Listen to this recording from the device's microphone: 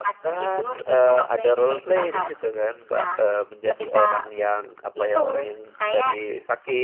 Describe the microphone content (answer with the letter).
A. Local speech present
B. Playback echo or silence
A